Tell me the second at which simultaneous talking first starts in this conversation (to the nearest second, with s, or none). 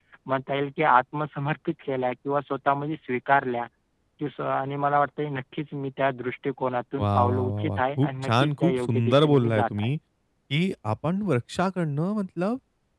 7 s